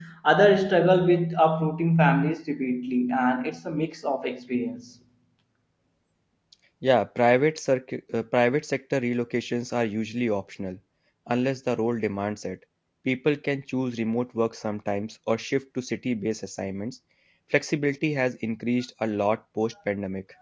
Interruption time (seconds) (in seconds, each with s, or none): none